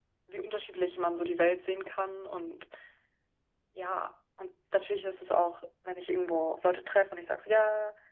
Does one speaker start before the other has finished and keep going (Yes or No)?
No